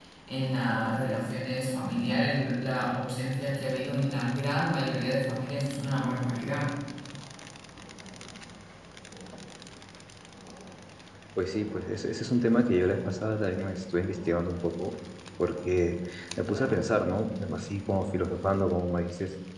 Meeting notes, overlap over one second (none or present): none